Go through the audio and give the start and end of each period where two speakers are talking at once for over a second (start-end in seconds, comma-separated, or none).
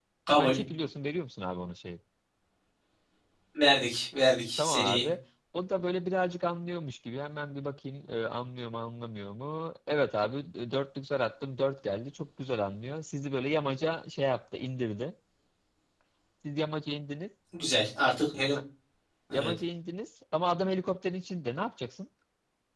none